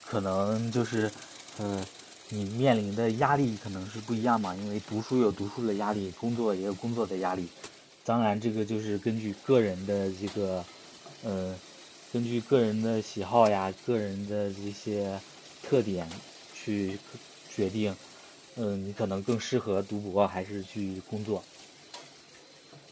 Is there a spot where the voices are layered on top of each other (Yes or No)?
No